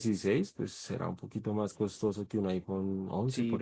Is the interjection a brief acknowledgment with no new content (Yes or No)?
No